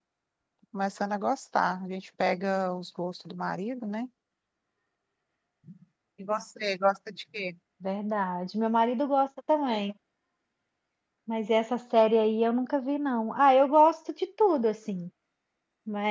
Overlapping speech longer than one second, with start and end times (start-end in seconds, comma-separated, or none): none